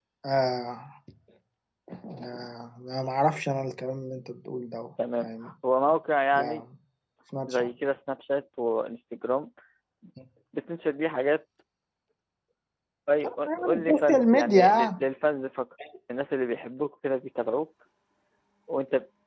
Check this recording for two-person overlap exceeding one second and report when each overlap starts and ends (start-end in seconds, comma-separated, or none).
13.4-14.9